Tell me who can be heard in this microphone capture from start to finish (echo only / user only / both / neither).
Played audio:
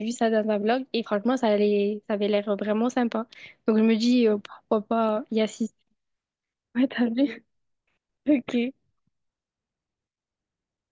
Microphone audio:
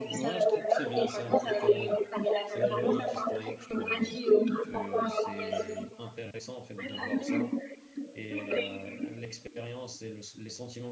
both